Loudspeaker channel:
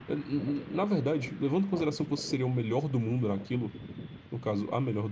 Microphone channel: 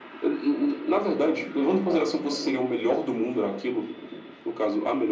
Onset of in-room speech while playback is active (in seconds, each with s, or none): none